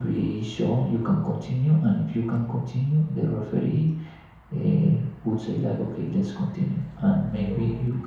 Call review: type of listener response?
listening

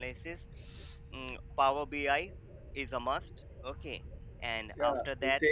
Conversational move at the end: taking over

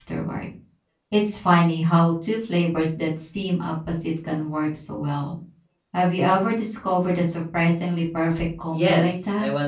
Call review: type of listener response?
taking over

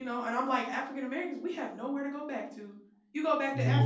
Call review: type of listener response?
listening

